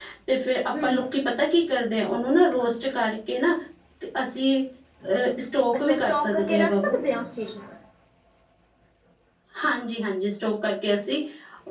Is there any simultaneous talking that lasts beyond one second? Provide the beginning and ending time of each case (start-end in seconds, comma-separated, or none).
5.8-7.0